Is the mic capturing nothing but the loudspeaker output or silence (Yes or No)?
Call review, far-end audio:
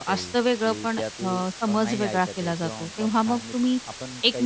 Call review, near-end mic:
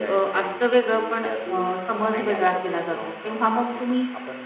Yes